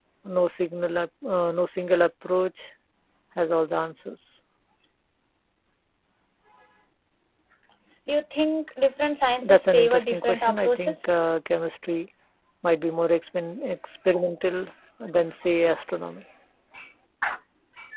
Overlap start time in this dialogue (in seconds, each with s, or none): 9.4 s